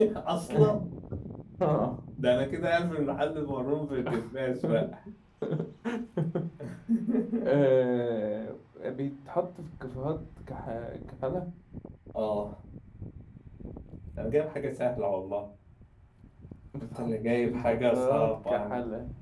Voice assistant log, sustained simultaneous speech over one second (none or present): present